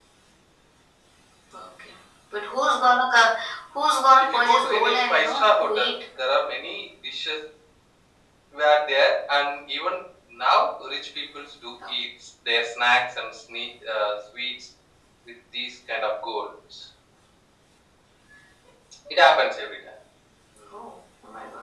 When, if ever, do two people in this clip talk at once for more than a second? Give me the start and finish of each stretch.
4.2-6.0

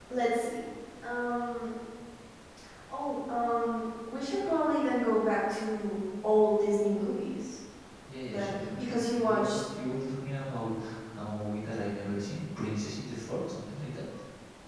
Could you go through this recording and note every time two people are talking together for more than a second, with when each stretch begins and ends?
8.3-9.6

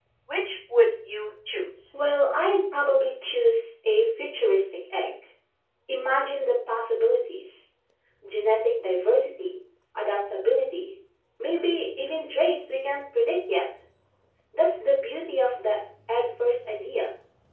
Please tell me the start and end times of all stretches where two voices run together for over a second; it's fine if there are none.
none

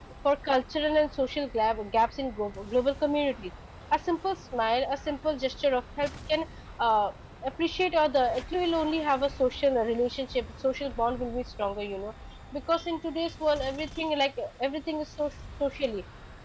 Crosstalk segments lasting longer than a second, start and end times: none

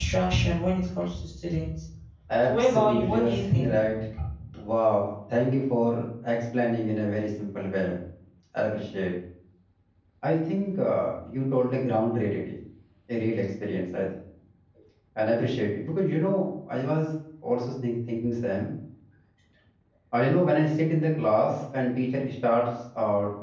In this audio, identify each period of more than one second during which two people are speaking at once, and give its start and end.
2.4-3.8

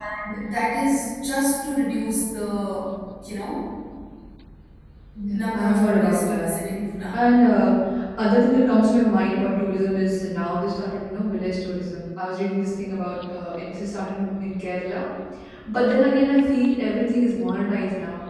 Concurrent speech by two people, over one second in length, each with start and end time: 5.3-6.5

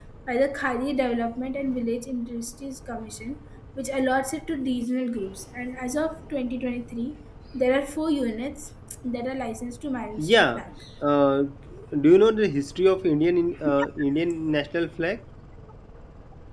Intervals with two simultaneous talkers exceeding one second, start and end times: none

